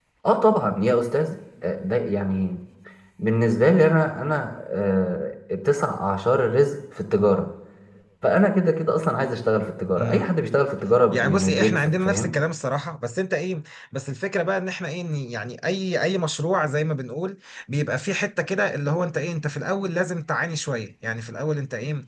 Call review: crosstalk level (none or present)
present